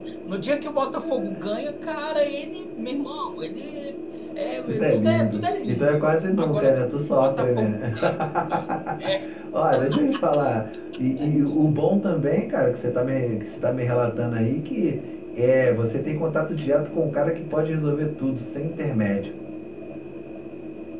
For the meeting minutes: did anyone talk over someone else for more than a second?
Yes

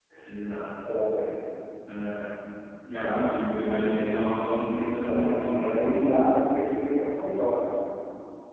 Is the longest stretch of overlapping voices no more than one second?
No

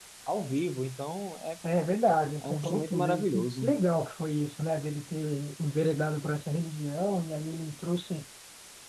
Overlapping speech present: Yes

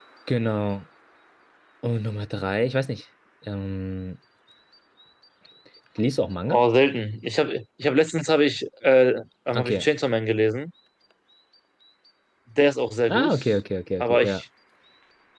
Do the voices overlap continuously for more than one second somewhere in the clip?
No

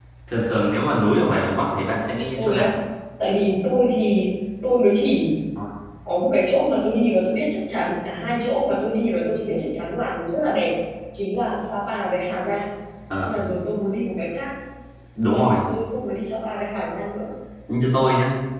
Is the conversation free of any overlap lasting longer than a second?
Yes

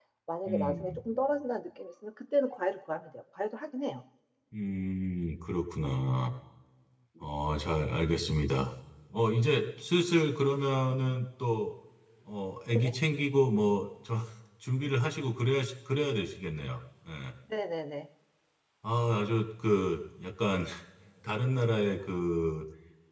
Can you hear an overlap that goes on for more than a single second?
No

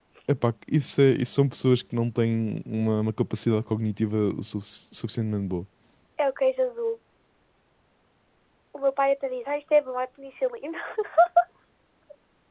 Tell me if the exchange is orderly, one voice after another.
Yes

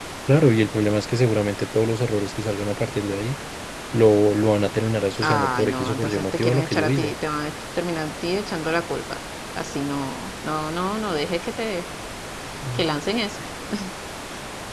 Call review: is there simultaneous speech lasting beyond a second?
Yes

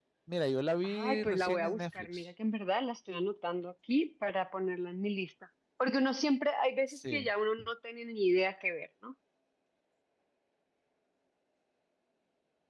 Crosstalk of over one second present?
Yes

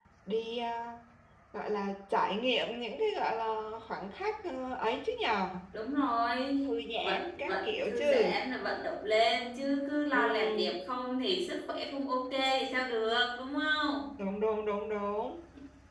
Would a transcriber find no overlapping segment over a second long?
No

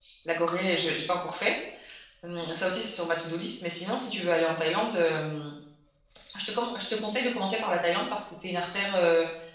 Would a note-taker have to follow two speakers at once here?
No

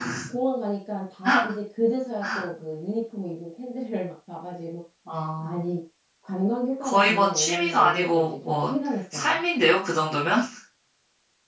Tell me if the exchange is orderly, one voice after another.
No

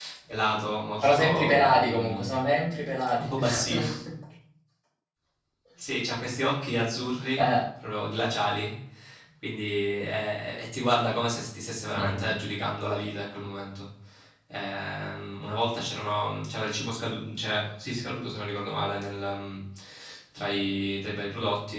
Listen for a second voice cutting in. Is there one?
Yes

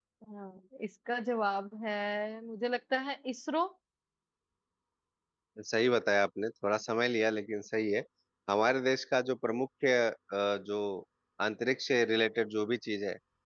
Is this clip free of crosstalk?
Yes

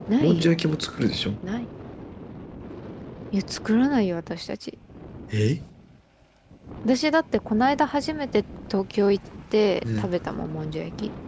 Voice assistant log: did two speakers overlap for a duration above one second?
No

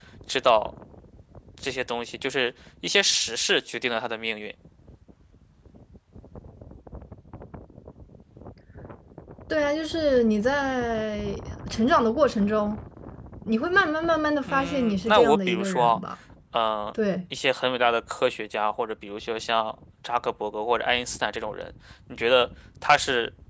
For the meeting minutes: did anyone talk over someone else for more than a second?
Yes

